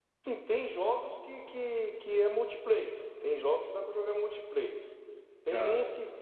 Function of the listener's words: listening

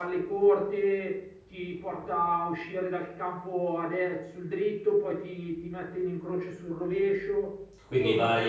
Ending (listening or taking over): taking over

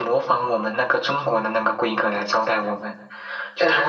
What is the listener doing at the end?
listening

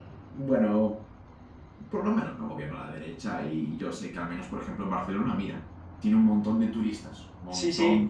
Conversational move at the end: taking over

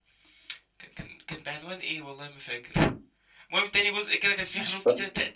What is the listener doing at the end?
listening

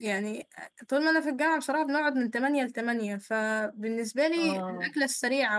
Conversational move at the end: listening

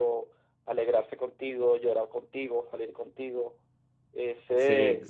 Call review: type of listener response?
taking over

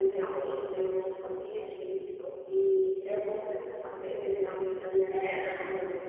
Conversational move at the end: taking over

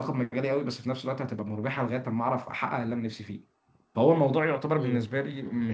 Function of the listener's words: listening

